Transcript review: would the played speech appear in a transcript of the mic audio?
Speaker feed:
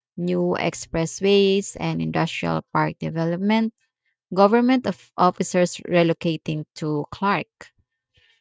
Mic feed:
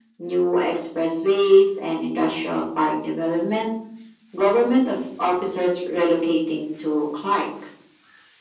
Yes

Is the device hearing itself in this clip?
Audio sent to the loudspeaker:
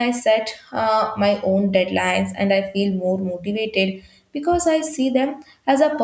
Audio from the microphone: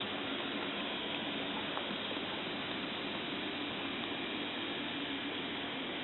No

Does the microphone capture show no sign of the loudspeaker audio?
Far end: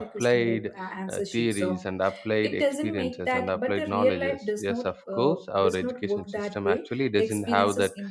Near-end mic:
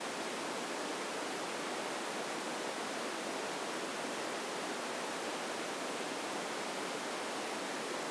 Yes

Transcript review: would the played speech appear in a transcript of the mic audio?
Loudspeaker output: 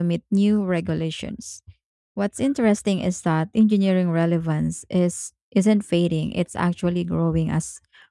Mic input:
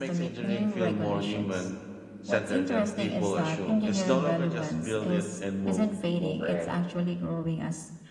Yes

